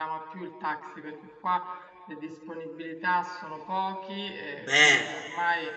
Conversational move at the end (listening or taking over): listening